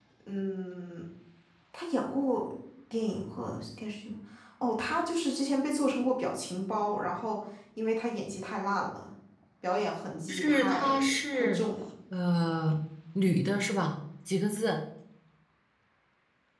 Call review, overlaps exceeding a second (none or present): present